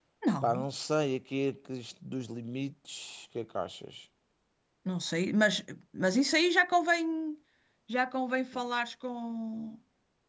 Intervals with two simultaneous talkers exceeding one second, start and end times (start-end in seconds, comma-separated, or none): none